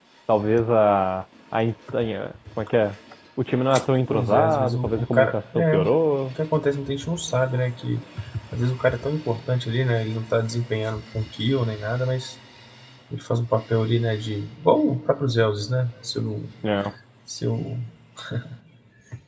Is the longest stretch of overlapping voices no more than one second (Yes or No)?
No